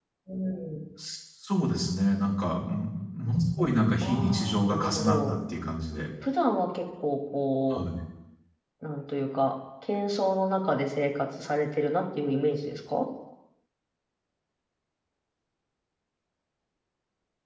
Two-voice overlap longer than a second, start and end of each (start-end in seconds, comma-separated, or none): 4.0-5.3